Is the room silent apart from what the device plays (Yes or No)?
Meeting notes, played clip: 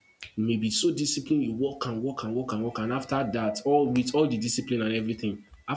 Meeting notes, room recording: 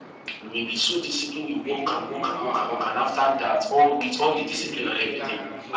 No